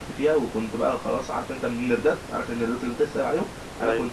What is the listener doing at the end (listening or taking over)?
listening